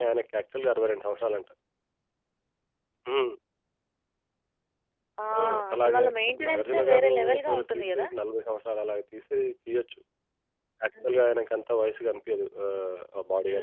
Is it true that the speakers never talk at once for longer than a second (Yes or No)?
No